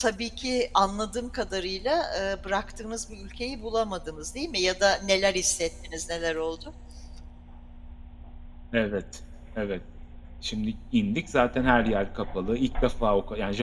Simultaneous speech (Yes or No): No